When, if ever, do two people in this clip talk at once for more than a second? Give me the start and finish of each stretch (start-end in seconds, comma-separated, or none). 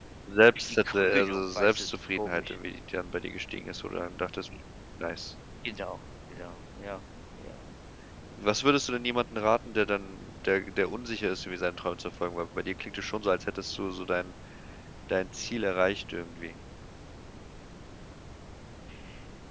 0.7-2.6